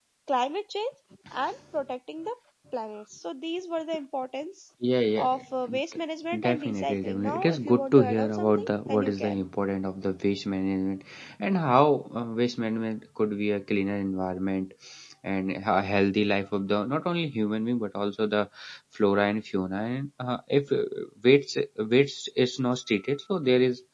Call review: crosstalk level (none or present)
present